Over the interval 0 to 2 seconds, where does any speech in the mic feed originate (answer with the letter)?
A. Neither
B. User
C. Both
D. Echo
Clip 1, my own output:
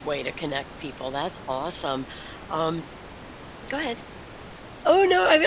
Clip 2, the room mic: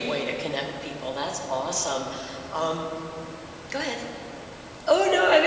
D